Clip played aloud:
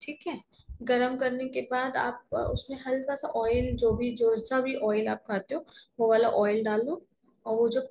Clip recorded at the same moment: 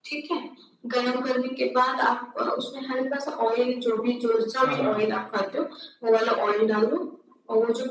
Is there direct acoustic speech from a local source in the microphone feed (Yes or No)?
Yes